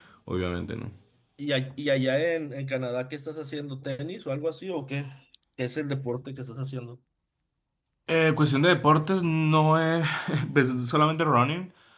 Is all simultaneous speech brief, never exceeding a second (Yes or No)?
Yes